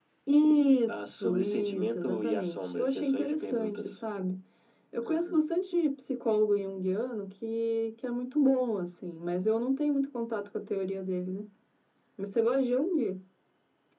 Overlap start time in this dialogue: 1 s

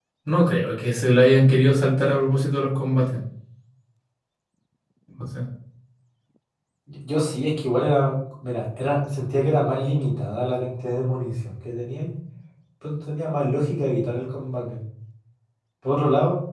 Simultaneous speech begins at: none

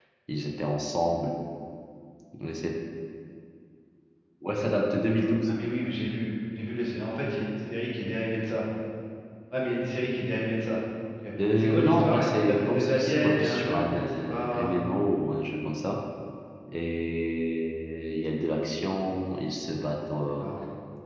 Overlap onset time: 11 s

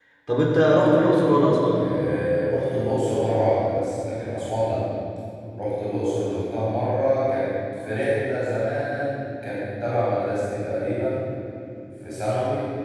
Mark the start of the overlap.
none

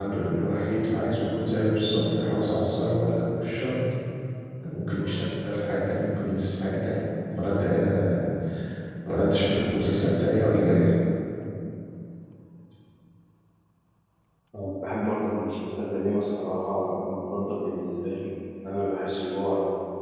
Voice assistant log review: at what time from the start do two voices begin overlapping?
none

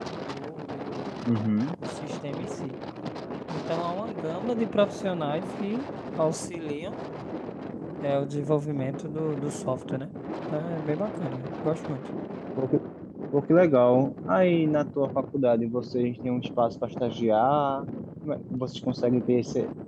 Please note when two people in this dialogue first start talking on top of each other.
none

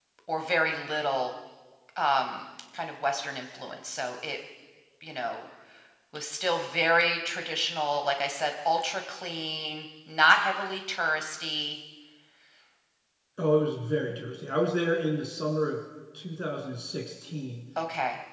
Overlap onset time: none

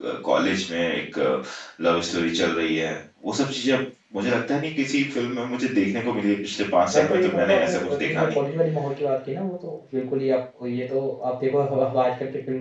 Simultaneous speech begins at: 7 s

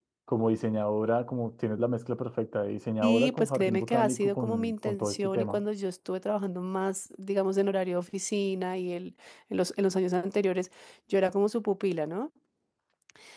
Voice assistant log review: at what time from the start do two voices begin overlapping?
3 s

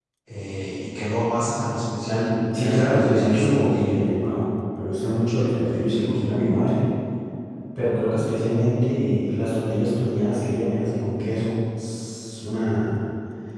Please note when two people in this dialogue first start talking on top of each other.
3 s

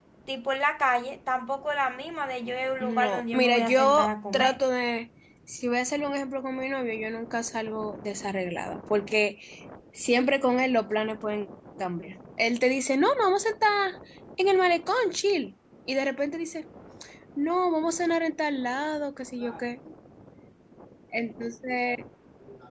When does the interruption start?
3 s

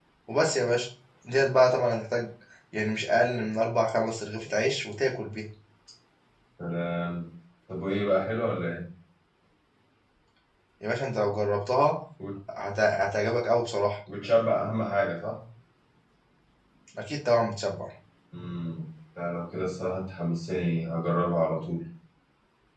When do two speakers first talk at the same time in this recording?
none

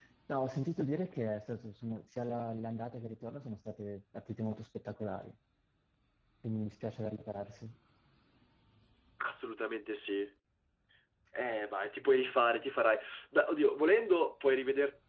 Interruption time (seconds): none

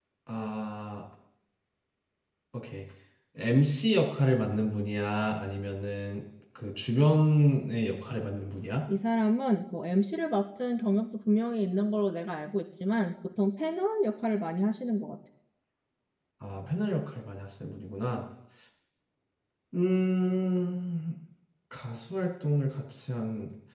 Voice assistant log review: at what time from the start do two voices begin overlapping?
none

